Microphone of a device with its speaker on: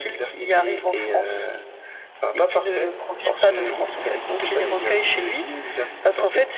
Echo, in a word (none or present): present